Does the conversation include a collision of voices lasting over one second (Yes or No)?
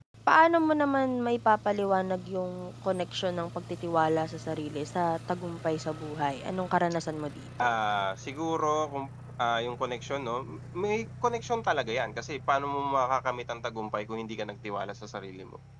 No